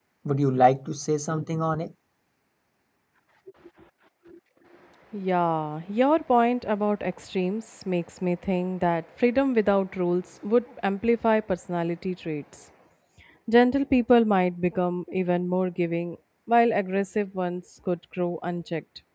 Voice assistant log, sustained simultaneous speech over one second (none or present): none